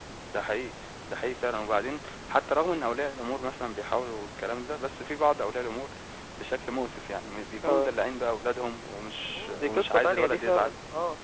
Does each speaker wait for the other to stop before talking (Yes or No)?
No